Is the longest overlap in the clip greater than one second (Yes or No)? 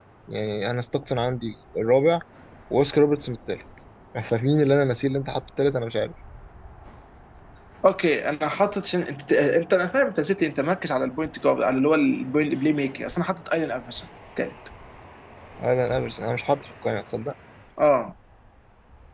No